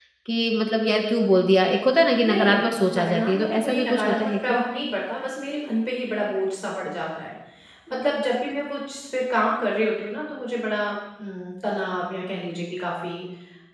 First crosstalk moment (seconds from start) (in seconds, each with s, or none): 2.2 s